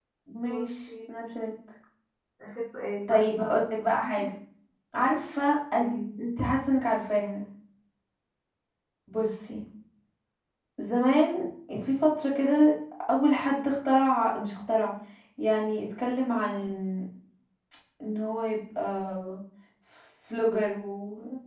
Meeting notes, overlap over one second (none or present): none